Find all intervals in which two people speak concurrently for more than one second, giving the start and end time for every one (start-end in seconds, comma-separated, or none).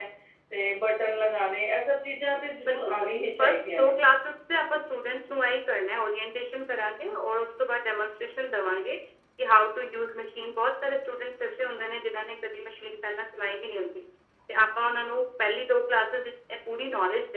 2.7-3.9